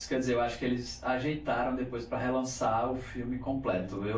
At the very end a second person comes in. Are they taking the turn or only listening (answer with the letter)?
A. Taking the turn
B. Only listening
B